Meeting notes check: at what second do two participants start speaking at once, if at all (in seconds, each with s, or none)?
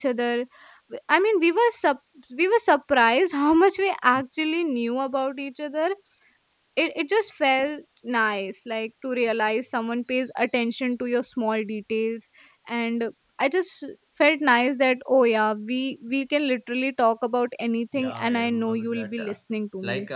17.9 s